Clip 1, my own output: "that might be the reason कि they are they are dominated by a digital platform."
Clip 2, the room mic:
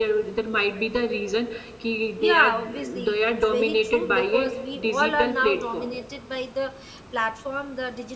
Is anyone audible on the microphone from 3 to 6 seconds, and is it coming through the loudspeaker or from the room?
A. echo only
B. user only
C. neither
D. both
D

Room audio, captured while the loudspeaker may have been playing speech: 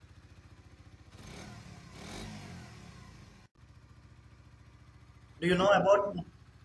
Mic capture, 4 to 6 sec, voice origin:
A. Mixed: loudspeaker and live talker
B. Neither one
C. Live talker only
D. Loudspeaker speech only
C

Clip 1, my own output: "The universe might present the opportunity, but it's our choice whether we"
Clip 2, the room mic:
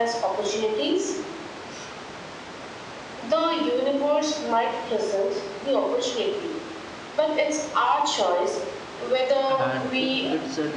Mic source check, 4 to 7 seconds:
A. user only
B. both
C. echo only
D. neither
C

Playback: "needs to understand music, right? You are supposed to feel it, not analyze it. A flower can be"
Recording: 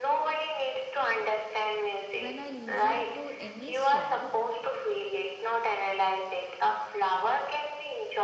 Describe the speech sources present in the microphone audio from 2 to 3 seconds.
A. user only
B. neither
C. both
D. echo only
C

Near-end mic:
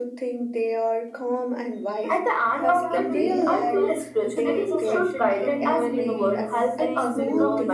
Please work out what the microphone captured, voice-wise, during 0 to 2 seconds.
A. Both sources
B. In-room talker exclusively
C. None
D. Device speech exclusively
D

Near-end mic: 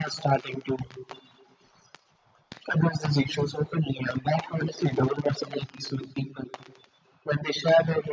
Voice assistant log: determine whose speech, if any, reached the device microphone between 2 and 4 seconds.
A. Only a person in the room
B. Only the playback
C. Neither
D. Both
B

